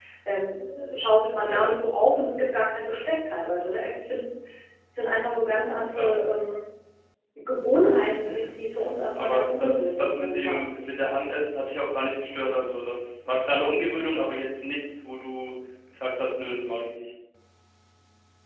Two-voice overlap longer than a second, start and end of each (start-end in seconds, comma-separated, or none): 9.1-10.6